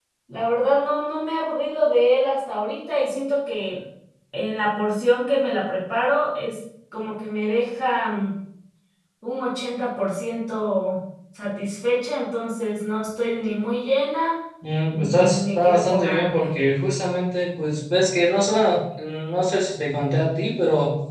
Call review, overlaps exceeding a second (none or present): present